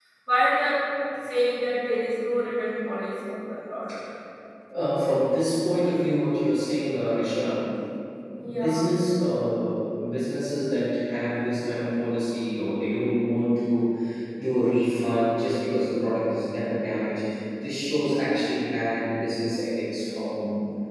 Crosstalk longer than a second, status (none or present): none